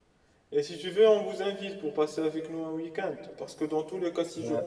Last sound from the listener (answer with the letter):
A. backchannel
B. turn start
A